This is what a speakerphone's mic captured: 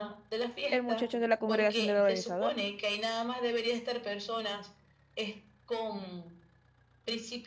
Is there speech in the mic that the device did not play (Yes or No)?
Yes